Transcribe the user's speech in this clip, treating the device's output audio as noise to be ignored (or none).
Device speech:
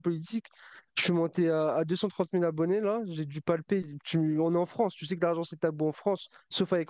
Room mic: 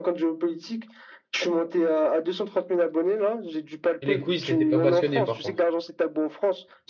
Et les quiz, t'étais pas passionné par contre.